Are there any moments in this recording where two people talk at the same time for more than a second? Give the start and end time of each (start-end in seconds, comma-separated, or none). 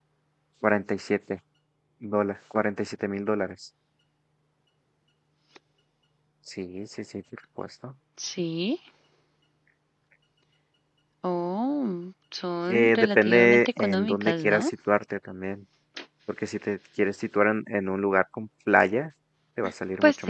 12.7-14.7